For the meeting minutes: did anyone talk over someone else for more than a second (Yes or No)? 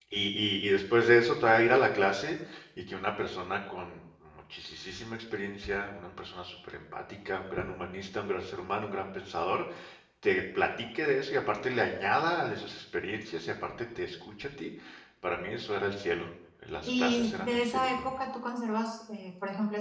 Yes